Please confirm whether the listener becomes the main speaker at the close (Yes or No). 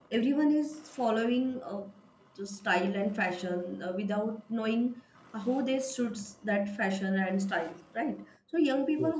No